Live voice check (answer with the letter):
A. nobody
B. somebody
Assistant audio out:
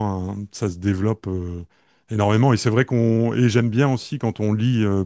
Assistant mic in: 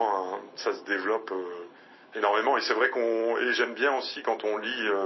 A